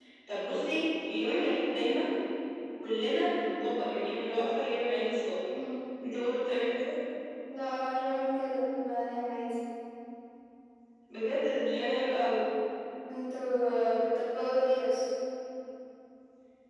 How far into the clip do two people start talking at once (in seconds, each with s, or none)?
none